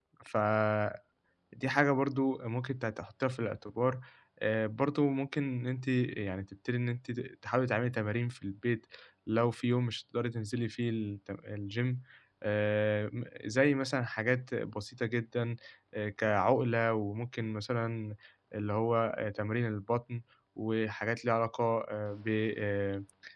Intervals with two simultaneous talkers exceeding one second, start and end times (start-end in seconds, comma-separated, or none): none